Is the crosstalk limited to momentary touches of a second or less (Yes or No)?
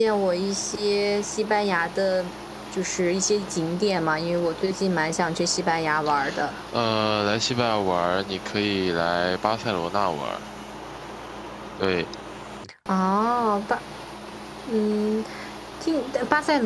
Yes